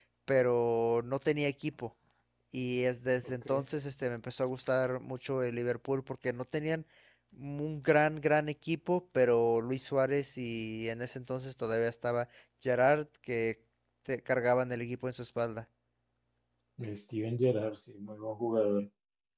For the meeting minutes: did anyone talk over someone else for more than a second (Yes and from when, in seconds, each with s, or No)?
No